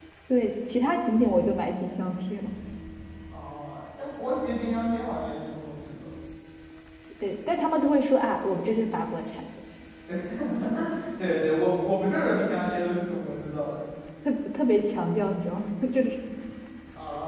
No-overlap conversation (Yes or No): Yes